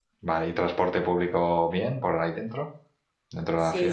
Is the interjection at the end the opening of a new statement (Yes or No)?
Yes